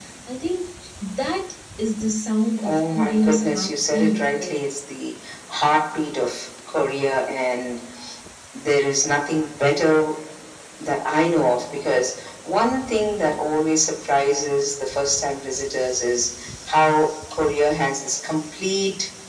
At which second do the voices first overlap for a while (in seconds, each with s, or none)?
2.6 s